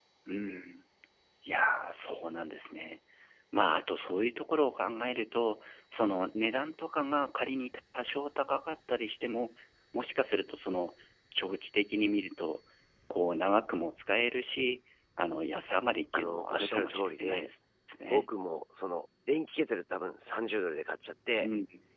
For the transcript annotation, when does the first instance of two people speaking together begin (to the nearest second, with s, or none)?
16 s